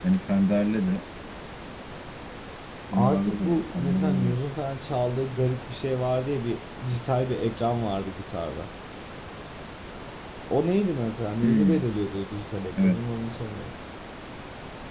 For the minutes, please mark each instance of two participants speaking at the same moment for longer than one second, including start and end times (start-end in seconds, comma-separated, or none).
2.9-4.3